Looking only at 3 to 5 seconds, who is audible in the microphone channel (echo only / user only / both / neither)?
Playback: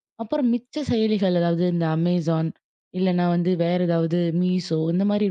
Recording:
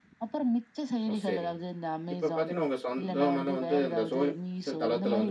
both